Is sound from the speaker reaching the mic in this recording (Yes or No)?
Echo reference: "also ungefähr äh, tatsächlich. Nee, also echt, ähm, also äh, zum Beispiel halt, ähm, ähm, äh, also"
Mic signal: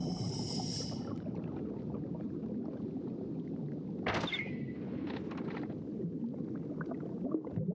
No